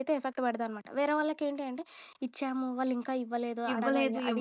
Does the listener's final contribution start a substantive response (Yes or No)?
Yes